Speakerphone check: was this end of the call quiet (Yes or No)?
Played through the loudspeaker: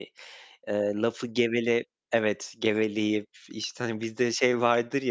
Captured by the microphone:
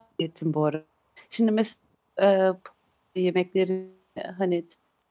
No